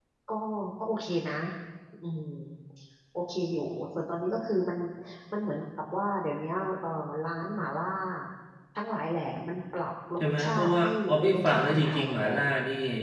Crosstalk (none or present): present